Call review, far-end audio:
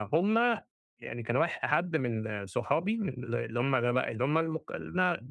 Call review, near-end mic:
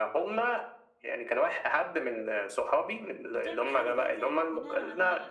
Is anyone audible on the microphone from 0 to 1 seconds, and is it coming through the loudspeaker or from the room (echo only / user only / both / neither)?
echo only